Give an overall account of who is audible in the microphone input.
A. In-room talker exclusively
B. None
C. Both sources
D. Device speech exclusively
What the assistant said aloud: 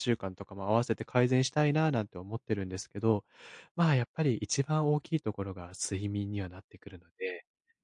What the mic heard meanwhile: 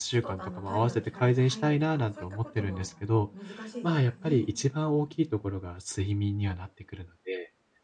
C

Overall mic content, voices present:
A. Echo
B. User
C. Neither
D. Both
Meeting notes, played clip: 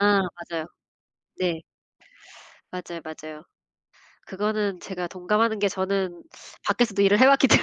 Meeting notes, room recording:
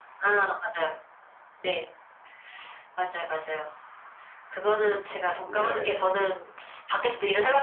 D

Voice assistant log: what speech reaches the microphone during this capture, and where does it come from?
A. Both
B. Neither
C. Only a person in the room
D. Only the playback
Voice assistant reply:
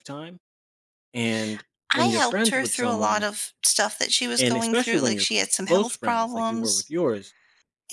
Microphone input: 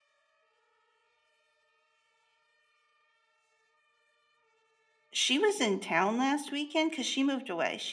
C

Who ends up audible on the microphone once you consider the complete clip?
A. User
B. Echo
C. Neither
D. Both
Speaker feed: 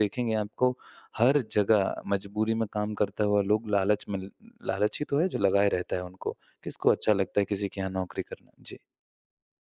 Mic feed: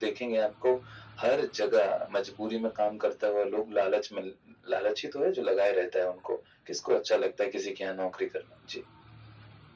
B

